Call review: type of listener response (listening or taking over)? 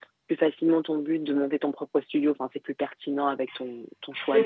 taking over